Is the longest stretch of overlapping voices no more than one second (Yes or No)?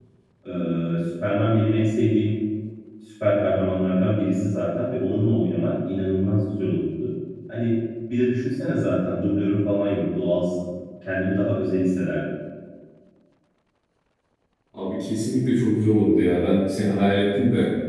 Yes